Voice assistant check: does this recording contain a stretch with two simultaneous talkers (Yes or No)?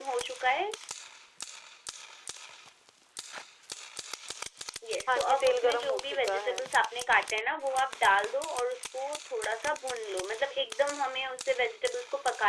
Yes